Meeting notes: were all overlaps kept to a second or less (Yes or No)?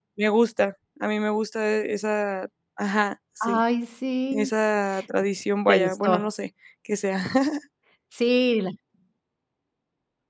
Yes